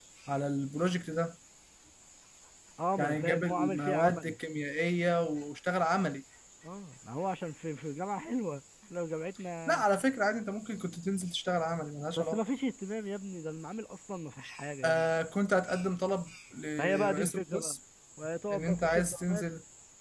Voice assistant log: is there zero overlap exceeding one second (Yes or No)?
No